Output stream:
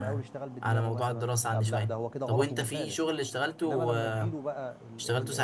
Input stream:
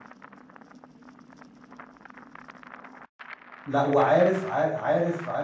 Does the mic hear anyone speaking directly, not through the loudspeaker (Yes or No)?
Yes